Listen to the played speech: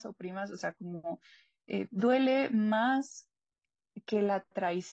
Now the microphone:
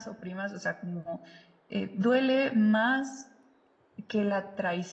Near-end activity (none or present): none